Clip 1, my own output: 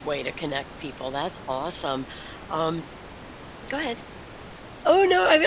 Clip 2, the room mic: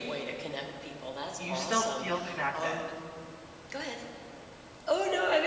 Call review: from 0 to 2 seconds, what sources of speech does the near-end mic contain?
both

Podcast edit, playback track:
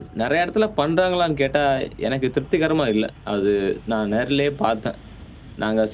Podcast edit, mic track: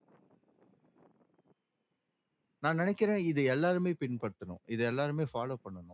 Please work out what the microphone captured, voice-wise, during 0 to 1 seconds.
neither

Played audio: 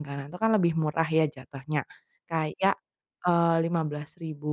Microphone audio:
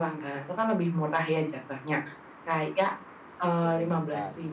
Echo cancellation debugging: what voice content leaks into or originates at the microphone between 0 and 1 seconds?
echo only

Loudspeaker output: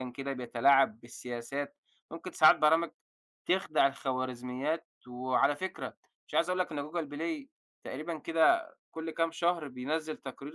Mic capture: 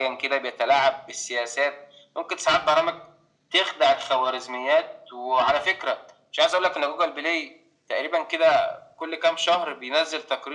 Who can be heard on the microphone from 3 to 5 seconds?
echo only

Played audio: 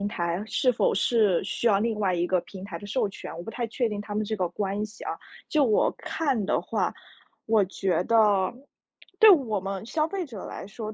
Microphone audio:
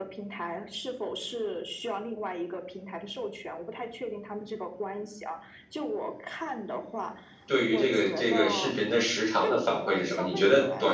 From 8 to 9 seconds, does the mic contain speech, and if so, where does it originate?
both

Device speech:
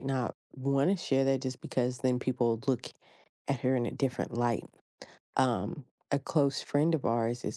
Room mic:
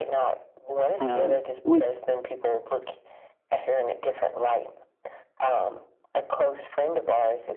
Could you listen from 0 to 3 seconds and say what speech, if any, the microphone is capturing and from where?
both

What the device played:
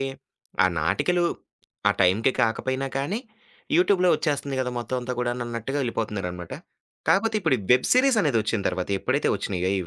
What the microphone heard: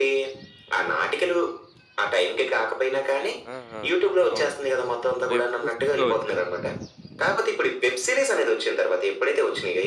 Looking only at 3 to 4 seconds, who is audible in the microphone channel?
both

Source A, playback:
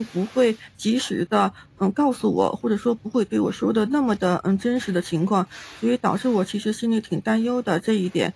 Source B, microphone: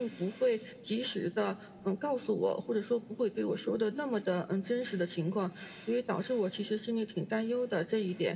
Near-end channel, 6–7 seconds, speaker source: echo only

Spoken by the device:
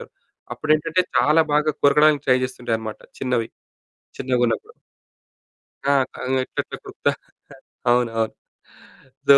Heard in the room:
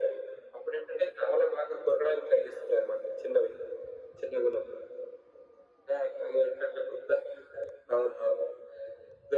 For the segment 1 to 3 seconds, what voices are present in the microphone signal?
echo only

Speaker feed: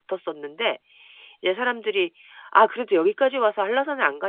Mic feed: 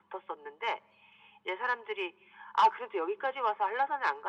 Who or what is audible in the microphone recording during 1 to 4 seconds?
echo only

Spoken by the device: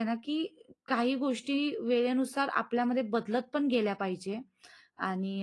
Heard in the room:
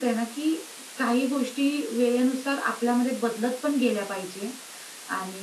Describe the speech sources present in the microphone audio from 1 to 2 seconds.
echo only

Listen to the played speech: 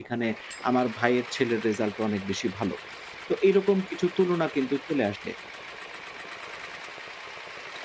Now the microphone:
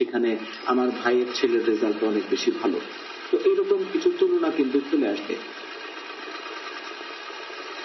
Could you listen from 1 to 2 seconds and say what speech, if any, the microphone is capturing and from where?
echo only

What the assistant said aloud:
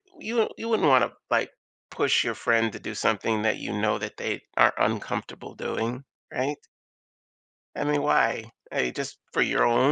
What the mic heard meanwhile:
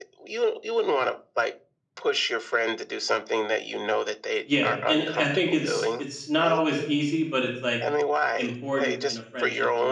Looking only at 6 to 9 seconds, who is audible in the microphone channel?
both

